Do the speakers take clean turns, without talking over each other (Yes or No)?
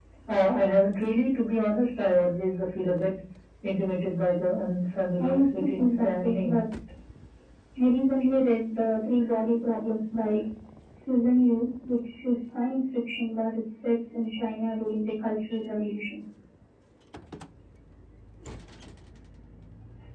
No